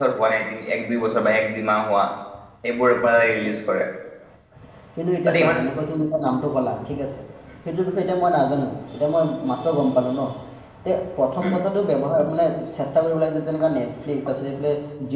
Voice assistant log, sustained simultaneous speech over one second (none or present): none